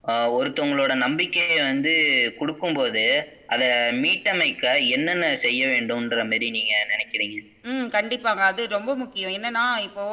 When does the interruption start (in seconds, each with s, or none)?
none